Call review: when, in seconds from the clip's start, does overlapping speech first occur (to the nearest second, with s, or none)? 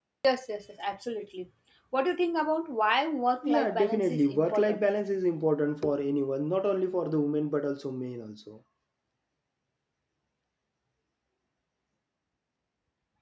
3 s